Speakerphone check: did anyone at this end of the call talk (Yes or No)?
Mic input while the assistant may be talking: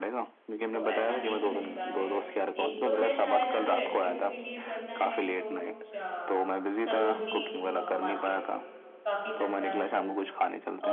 Yes